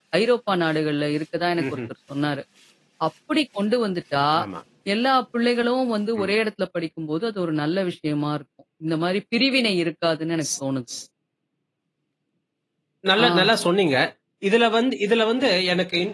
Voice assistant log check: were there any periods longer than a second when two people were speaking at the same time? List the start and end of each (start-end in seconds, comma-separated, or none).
none